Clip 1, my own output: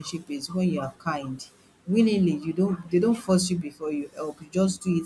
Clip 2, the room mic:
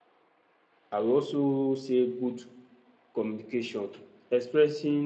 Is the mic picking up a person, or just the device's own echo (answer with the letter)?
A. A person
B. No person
A